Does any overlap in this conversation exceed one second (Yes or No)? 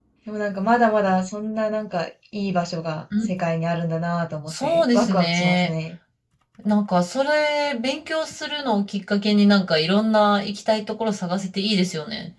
Yes